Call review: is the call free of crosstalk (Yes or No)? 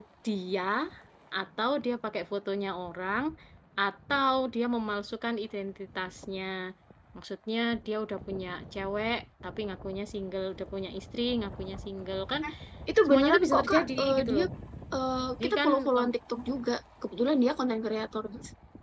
No